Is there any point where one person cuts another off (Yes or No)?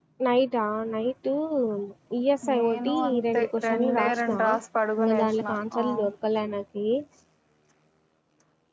Yes